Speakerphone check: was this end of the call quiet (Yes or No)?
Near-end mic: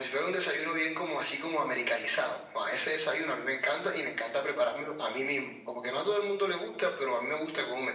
Yes